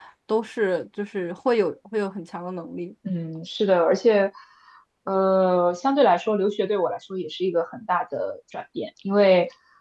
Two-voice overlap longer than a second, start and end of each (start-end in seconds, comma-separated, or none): none